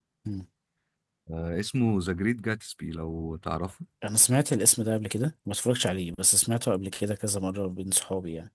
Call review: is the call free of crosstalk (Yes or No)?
Yes